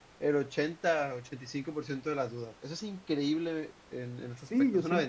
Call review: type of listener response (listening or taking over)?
taking over